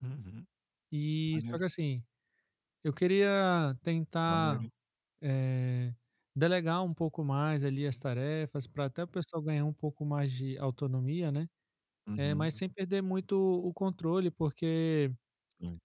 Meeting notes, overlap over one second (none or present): none